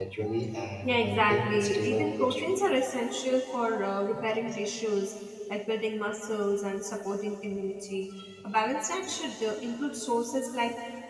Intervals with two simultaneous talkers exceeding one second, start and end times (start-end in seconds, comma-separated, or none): 0.8-2.4